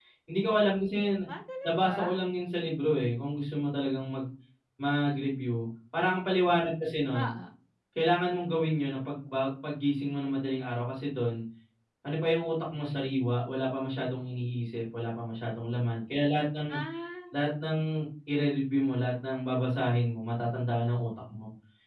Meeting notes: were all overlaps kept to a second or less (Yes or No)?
Yes